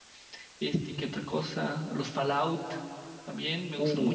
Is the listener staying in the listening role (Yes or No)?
No